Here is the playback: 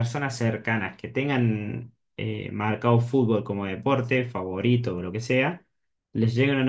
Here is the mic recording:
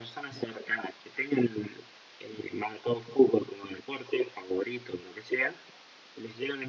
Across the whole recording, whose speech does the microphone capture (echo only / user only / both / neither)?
echo only